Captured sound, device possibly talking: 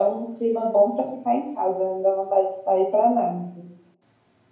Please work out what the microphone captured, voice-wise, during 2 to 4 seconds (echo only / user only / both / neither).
echo only